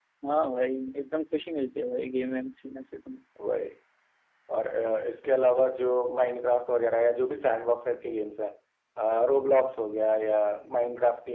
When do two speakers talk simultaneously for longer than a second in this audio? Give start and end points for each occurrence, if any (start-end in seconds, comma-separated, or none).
none